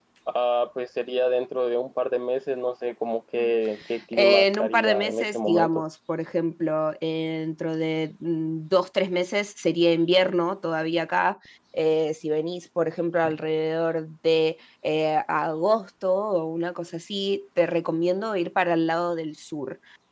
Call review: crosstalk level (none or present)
present